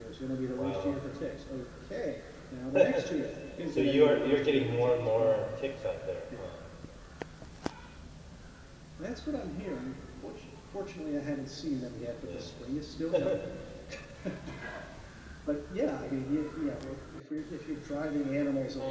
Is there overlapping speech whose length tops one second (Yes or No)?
Yes